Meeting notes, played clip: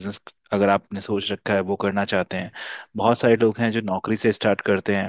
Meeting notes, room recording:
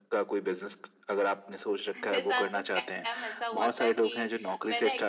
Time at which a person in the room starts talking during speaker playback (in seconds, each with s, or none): 1.9 s